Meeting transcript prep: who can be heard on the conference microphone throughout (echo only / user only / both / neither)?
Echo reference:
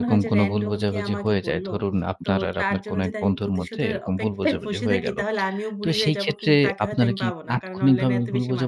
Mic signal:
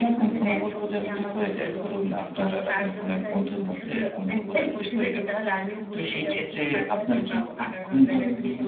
echo only